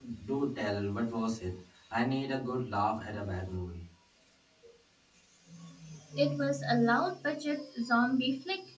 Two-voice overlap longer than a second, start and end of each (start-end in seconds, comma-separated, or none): none